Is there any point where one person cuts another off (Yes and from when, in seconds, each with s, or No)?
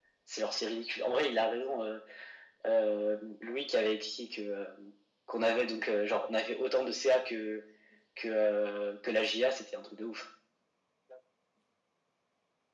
No